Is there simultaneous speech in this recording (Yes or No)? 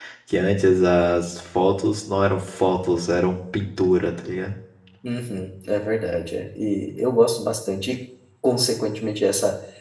No